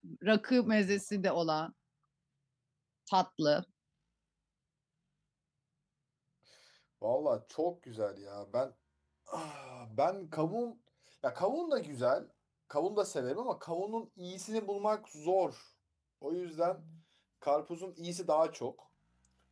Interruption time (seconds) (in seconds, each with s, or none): none